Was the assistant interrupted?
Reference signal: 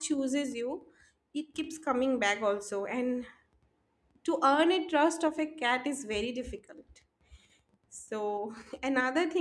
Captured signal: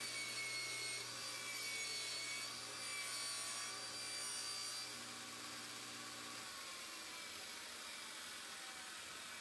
No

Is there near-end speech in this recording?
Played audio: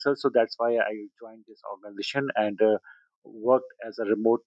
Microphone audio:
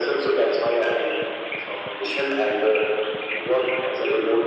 No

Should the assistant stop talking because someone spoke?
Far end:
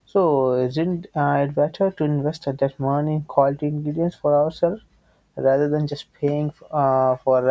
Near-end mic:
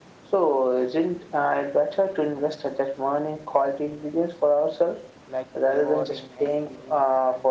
Yes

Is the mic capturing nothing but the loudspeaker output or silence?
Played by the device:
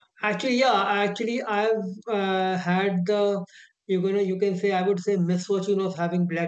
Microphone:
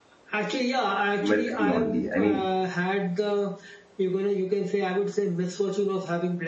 No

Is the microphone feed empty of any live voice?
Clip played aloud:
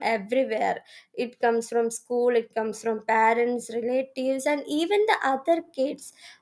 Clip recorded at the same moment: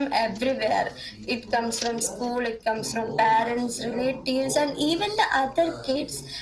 No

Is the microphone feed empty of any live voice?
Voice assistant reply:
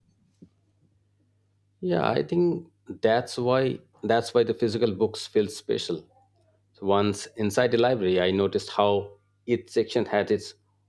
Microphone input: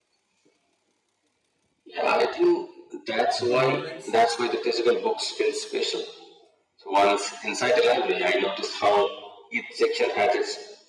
No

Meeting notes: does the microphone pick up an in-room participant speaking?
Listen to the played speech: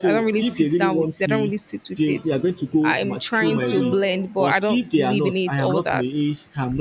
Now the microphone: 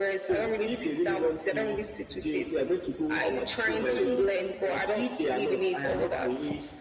No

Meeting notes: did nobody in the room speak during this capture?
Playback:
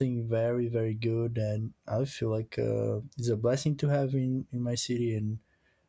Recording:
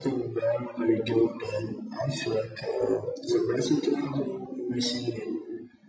Yes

